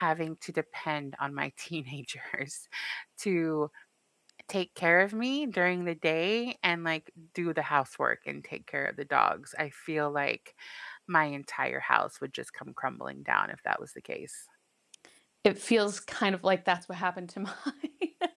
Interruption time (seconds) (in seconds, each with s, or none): none